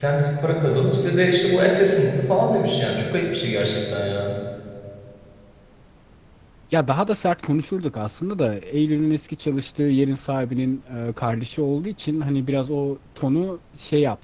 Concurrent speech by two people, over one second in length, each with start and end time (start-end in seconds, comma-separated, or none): none